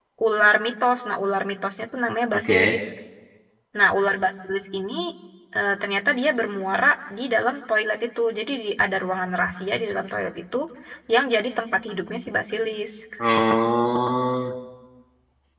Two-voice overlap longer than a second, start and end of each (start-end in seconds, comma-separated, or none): none